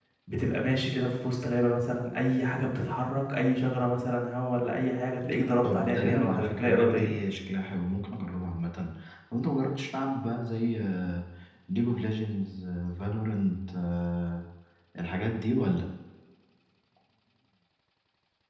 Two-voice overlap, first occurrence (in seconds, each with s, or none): 5.6 s